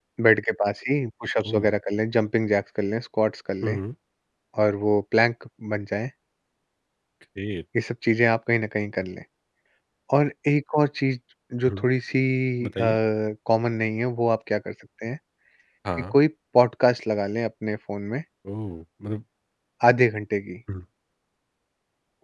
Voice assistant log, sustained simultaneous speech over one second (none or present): none